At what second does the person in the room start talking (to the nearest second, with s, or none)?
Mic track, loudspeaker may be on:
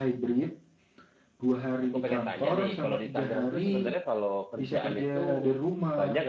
2 s